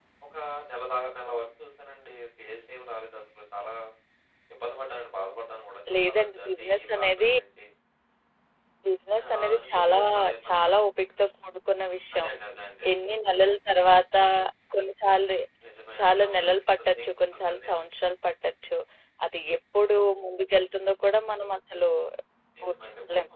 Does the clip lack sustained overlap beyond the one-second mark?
No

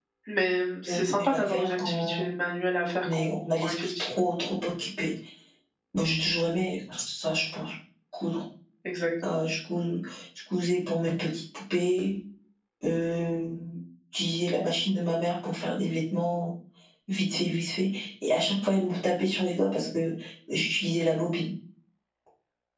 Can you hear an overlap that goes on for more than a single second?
Yes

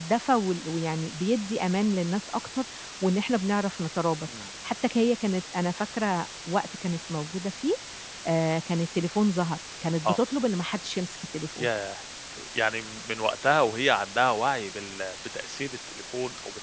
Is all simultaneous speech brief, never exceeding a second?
Yes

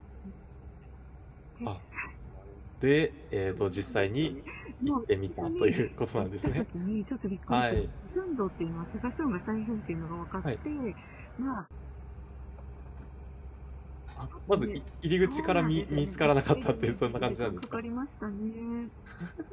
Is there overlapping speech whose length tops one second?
Yes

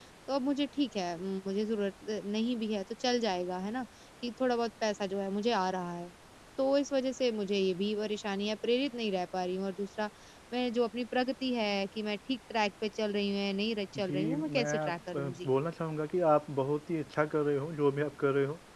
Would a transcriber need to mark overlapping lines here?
Yes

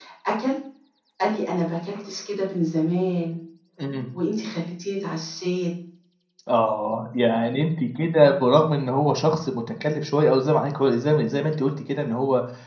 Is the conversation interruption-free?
Yes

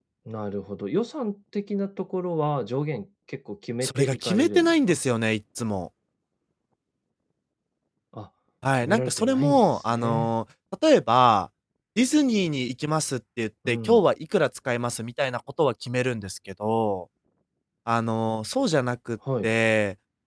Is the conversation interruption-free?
No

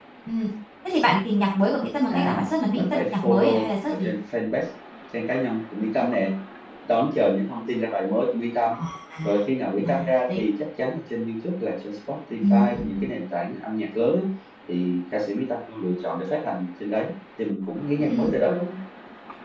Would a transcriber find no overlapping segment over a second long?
No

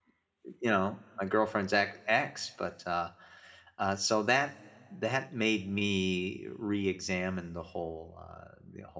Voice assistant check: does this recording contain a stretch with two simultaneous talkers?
No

